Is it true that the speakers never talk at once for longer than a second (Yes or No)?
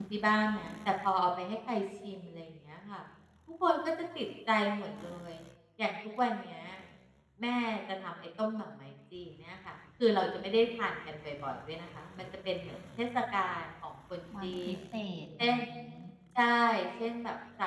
Yes